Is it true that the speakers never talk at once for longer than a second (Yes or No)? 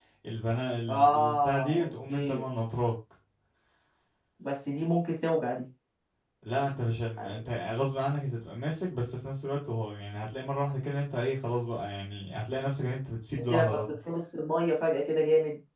No